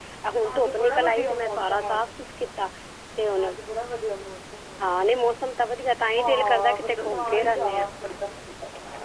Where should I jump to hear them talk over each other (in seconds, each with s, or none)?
0.5 s